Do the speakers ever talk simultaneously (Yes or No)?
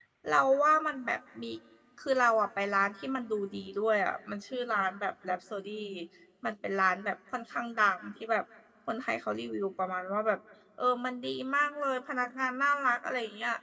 No